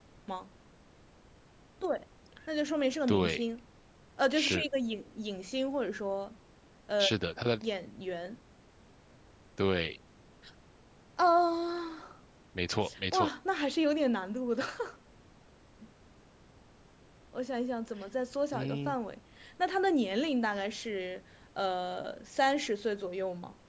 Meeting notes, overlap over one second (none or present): none